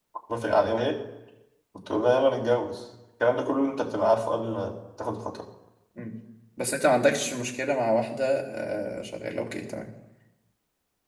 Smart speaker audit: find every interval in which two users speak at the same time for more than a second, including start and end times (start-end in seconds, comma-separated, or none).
none